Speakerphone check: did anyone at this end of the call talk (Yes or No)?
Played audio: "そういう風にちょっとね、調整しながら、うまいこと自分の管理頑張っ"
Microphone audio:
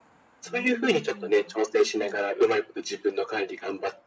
Yes